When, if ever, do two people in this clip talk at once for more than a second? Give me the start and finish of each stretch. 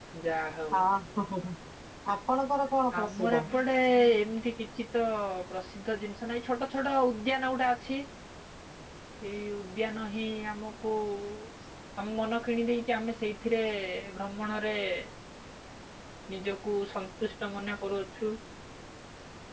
none

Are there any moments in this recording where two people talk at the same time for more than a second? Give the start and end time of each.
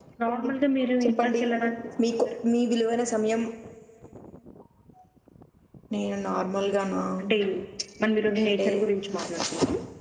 none

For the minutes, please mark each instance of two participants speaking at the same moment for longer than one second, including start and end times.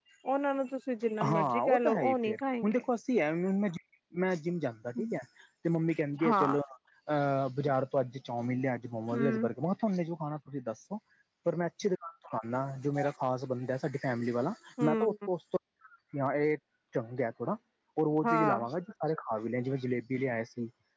1.2-2.8

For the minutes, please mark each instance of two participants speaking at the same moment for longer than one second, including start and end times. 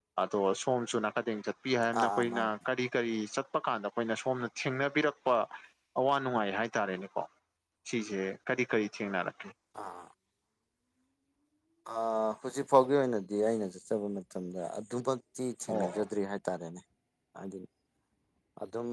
none

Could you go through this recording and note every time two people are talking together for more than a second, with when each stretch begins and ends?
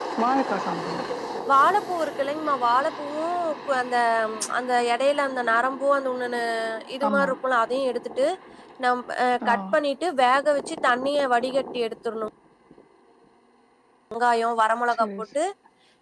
none

